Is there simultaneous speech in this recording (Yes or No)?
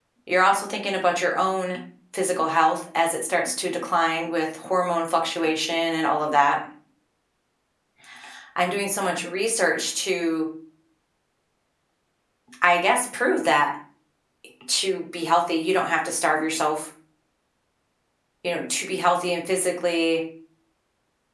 No